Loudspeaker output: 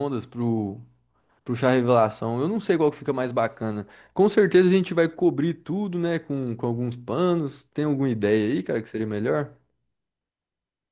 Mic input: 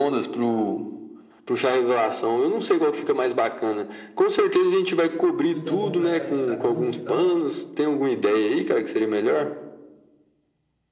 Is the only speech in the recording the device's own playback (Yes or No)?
No